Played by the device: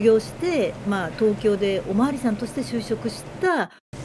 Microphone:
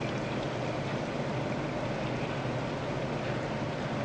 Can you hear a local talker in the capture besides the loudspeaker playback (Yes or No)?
No